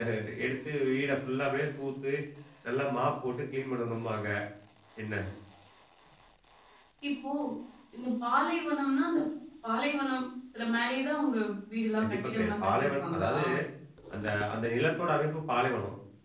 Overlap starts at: 12.0 s

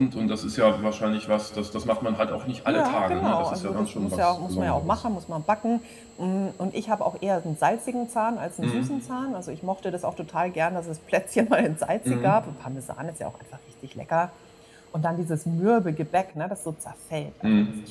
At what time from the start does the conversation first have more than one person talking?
2.7 s

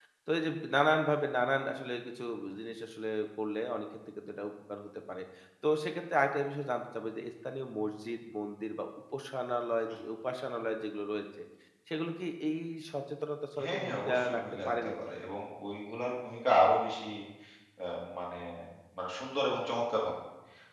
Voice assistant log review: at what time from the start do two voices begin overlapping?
13.6 s

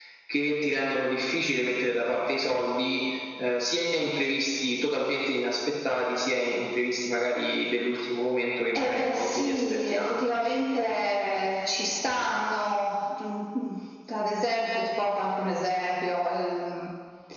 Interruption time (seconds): 8.8 s

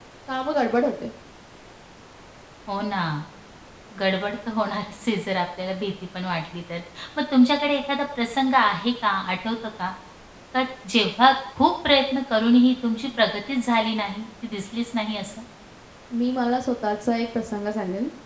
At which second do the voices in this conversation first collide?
none

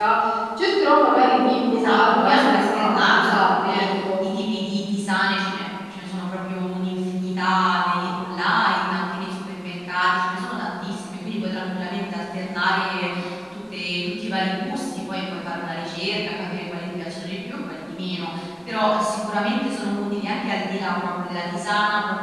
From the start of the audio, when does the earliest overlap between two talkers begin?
1.7 s

